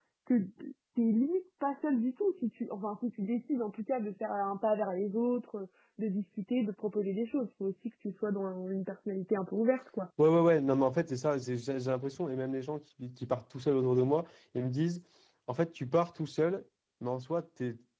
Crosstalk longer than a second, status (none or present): none